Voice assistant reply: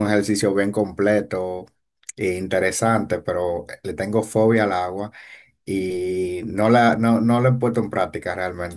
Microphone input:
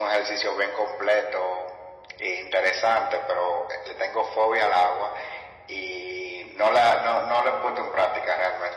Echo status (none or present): present